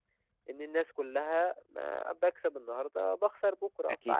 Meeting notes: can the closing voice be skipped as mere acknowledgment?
No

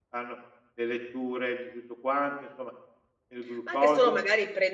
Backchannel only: No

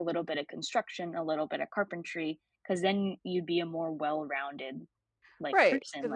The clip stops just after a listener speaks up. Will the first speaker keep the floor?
No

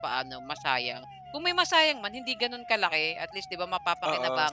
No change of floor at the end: No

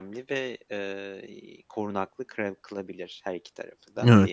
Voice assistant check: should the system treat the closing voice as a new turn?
Yes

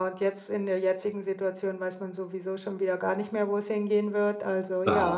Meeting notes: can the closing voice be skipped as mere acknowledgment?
No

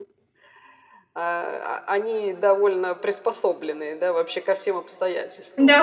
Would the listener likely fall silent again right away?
No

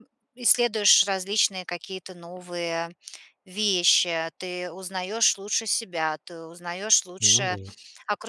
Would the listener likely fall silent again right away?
Yes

